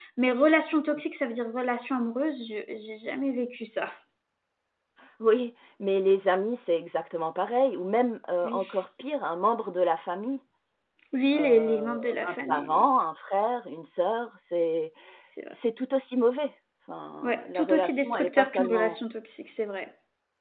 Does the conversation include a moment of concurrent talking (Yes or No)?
Yes